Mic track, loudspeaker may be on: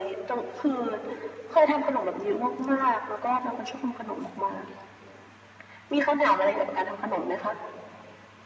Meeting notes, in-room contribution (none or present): none